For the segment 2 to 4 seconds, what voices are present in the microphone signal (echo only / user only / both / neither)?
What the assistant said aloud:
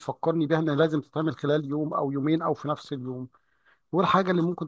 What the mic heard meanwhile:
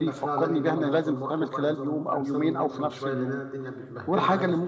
both